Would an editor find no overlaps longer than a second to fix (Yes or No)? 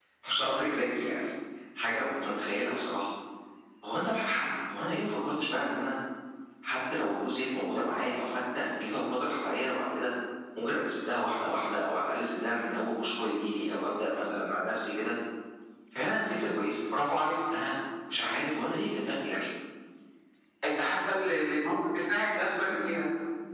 Yes